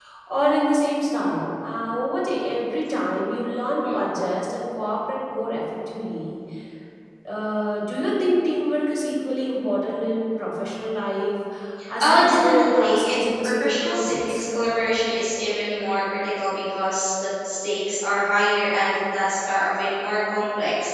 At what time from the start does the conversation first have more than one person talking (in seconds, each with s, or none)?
12.0 s